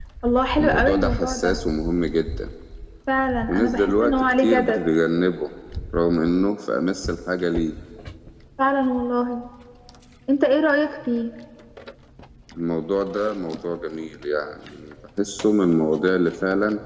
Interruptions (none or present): present